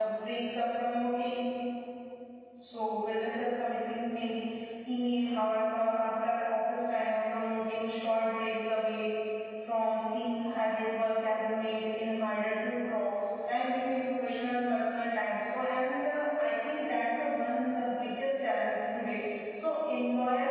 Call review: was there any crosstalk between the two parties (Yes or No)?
No